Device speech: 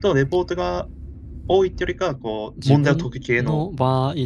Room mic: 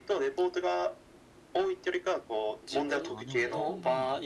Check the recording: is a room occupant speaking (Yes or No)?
Yes